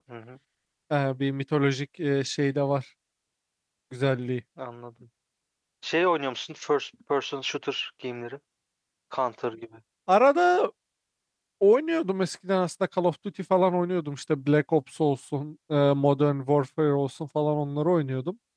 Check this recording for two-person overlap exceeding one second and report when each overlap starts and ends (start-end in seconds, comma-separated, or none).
none